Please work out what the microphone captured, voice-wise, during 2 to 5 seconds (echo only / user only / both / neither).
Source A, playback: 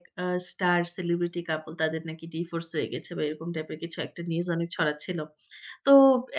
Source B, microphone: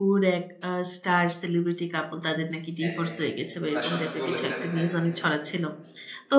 both